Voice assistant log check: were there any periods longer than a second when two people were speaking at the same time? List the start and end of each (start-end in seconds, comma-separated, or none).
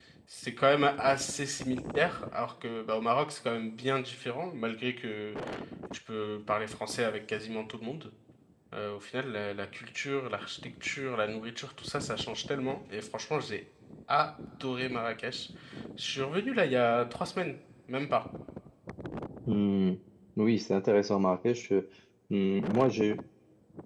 none